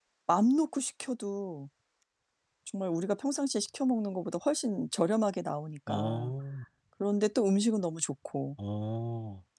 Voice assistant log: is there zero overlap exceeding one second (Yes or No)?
Yes